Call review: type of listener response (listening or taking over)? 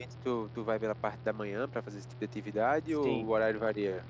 taking over